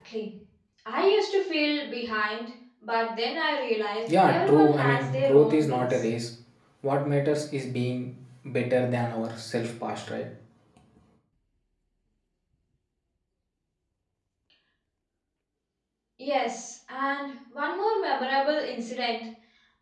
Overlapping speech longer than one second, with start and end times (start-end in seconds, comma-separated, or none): 4.1-6.0